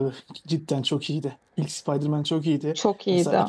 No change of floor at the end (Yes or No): Yes